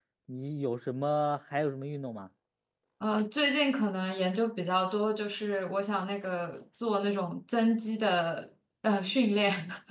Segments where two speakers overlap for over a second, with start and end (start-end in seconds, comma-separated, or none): none